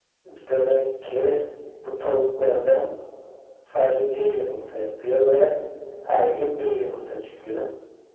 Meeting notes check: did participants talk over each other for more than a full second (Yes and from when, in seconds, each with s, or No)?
No